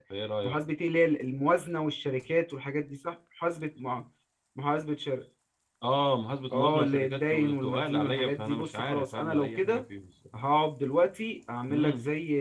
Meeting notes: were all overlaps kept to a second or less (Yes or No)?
No